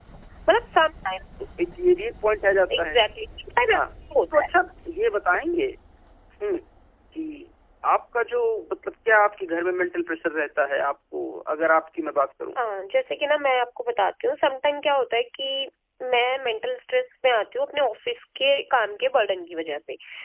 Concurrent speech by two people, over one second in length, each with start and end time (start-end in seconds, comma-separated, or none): none